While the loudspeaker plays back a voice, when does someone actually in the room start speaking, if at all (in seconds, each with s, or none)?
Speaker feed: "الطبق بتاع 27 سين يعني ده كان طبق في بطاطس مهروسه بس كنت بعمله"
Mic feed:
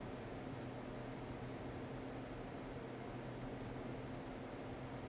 none